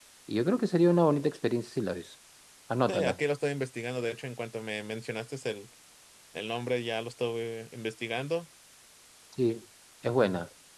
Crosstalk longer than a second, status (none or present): none